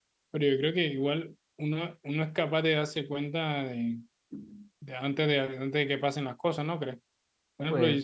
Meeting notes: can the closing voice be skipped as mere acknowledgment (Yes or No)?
Yes